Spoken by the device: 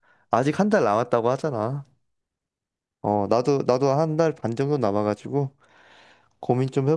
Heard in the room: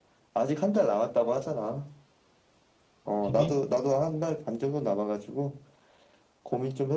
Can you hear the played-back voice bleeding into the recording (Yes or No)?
Yes